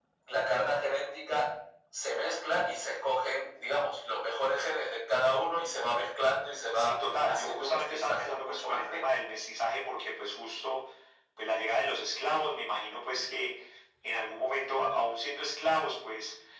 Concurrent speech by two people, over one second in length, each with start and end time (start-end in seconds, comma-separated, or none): 6.7-9.1